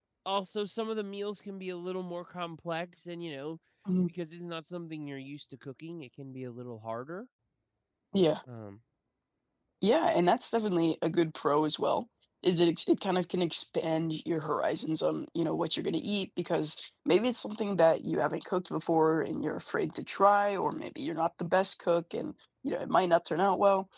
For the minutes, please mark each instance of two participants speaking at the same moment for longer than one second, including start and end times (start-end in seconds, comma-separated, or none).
none